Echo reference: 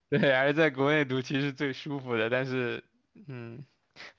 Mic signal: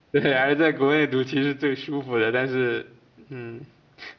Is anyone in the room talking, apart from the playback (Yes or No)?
No